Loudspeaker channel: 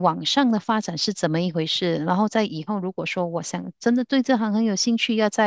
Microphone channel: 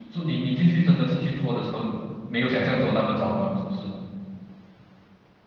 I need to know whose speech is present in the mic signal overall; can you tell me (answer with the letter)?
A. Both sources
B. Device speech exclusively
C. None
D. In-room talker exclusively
D